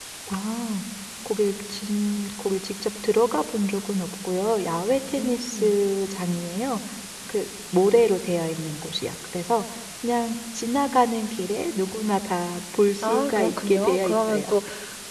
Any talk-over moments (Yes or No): Yes